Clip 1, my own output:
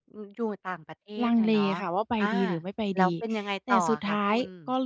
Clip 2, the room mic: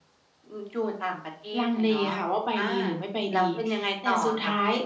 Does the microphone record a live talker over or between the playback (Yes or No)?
No